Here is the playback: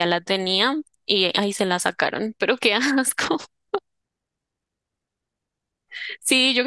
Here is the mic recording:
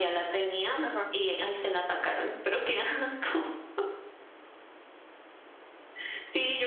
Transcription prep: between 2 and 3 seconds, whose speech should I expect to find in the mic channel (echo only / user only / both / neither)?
echo only